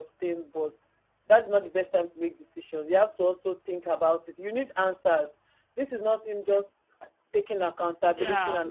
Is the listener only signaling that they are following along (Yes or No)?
No